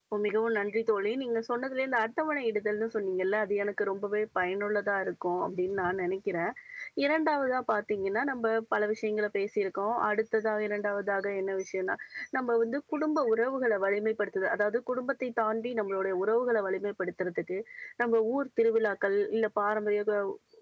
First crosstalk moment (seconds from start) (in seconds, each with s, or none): none